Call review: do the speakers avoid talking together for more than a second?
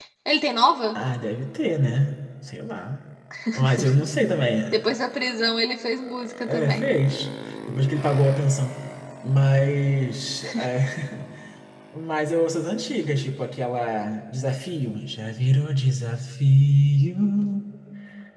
Yes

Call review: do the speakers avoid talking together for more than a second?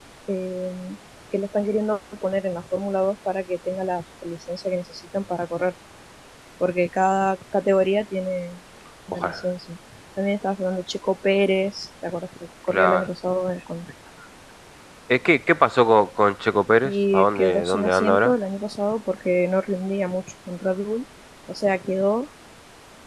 No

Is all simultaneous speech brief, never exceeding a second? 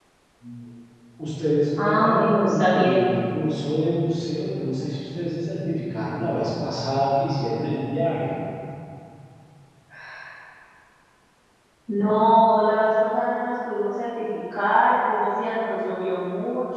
No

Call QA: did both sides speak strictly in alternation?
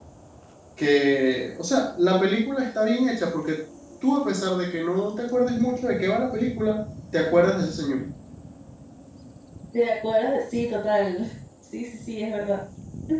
Yes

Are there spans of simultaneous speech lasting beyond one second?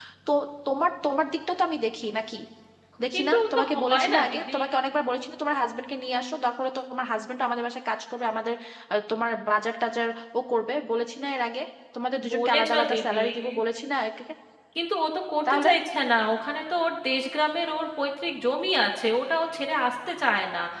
Yes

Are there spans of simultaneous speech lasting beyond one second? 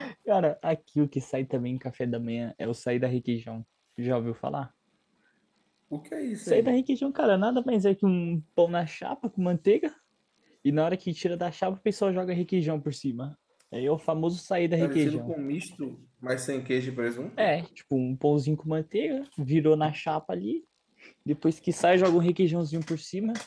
No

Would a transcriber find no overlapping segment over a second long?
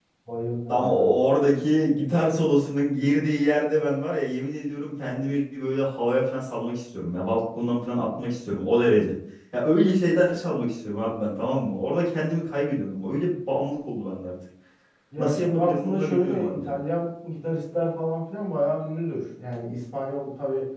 No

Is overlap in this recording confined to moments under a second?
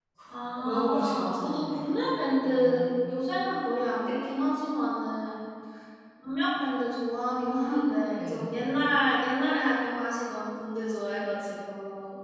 No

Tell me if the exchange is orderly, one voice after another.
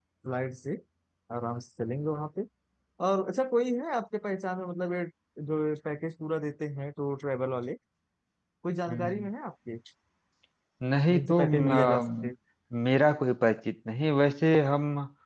No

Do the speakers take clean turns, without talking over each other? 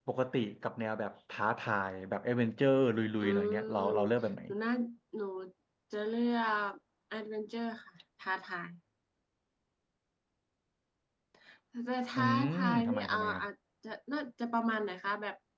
No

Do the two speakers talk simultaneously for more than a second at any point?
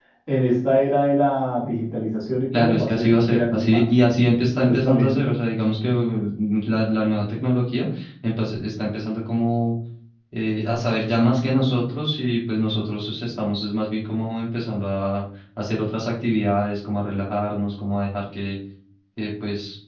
Yes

